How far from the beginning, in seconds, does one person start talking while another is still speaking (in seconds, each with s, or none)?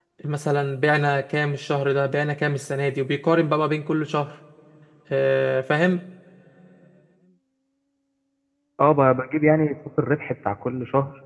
none